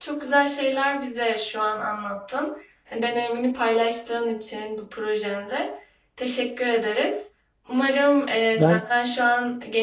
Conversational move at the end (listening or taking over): listening